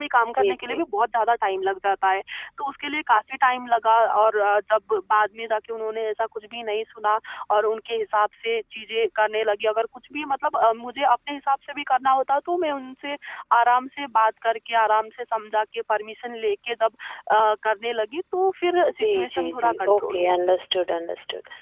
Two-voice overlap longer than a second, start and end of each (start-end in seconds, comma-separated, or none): 19.0-20.3